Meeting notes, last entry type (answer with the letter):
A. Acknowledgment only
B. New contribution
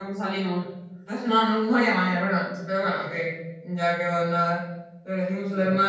A